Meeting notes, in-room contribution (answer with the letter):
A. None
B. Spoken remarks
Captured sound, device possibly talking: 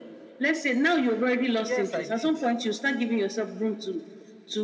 B